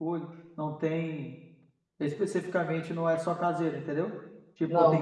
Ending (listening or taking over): taking over